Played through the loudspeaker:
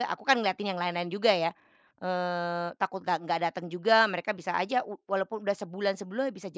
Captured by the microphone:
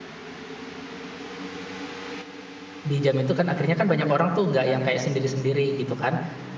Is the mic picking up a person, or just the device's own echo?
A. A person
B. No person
A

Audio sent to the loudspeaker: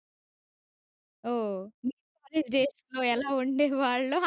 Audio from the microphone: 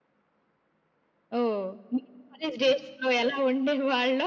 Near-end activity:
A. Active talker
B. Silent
B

